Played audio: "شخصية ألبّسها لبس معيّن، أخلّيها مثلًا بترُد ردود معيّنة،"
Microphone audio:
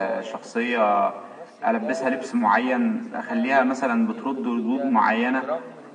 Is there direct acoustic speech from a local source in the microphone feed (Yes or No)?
Yes